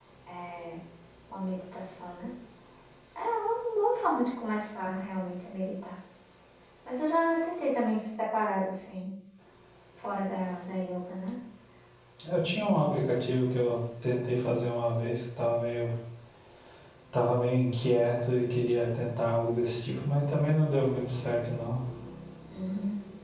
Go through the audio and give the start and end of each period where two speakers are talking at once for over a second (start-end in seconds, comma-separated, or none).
none